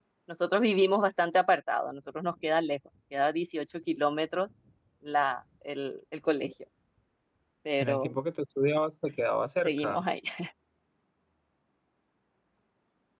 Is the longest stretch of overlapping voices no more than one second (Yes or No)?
Yes